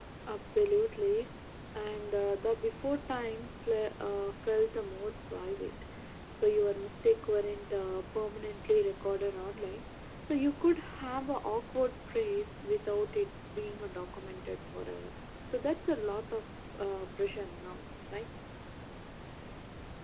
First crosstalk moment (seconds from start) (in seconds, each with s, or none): none